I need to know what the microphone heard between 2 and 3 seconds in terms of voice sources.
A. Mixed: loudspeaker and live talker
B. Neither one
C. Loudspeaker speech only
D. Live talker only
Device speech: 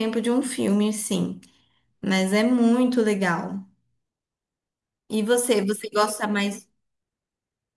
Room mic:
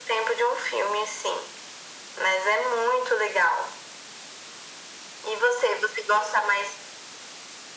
C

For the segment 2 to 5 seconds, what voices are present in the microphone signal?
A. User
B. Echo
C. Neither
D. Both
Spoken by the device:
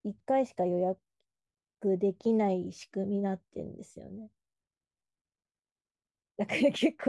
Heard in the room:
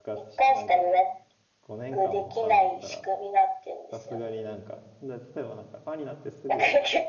D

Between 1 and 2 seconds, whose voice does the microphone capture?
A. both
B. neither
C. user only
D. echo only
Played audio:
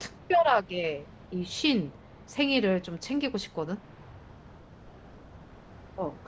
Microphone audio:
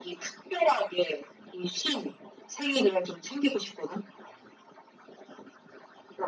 D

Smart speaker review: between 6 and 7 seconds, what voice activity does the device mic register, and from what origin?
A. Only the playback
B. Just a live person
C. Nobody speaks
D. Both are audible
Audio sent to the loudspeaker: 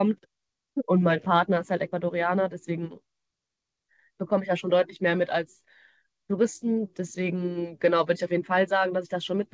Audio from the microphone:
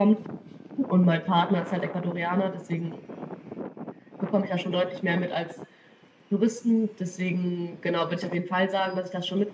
A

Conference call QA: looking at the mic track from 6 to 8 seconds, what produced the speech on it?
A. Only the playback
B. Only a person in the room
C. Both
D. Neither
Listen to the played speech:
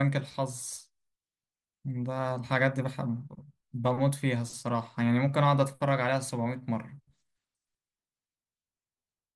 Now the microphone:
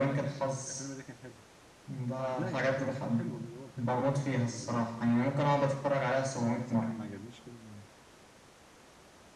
C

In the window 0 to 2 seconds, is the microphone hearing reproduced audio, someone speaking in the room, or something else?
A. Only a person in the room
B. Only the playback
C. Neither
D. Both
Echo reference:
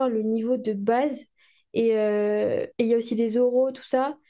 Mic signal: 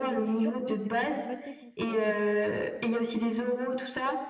D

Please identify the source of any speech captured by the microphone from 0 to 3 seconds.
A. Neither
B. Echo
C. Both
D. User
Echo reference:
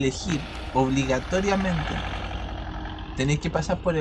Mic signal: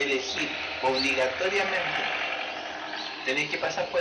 B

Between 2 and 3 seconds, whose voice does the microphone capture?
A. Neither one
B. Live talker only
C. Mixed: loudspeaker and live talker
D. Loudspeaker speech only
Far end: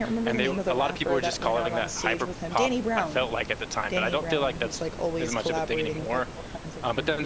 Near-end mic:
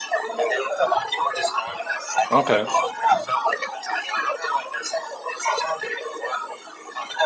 C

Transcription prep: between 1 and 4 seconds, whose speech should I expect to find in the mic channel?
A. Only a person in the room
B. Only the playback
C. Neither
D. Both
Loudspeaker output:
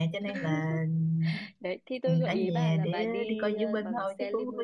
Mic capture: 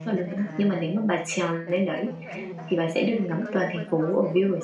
D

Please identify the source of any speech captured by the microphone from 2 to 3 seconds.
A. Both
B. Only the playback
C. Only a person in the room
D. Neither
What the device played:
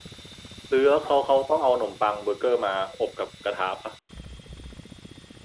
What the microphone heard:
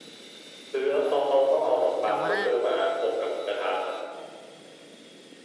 A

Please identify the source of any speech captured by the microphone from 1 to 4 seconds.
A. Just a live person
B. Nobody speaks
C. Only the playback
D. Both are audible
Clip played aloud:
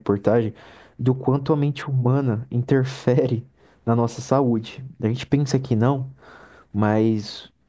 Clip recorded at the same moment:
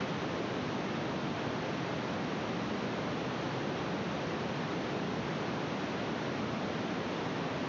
B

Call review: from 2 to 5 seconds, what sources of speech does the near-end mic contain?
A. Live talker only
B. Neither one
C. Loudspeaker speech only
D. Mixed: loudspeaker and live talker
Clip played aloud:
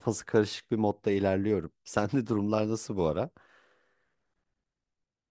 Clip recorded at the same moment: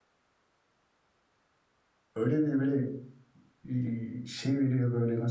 A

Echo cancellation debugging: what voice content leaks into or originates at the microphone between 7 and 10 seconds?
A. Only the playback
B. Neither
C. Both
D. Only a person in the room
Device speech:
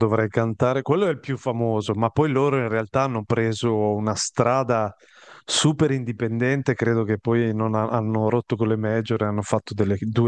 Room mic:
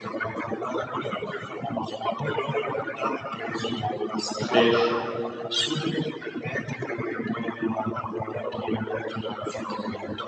A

